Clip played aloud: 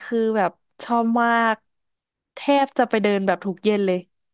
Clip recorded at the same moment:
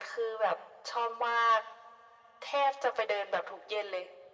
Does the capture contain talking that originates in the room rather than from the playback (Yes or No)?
No